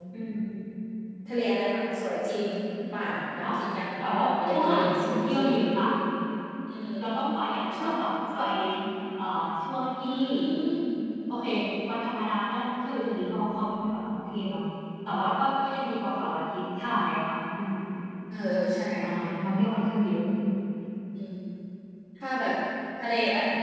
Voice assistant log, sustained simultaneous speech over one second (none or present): present